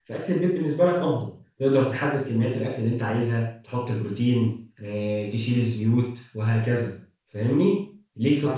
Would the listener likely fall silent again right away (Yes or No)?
No